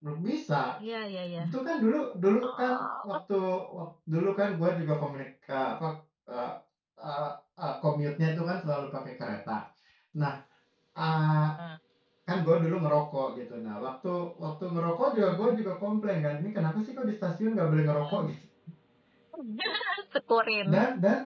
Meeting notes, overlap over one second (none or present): none